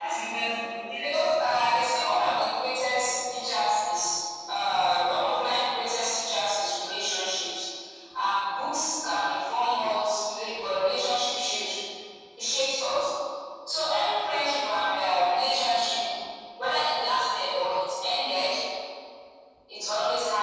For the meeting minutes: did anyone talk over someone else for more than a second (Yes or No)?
Yes